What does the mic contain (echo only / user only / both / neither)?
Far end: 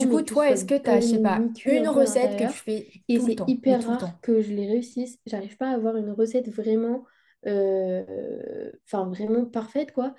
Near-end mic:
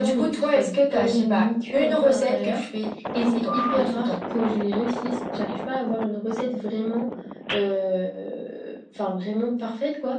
echo only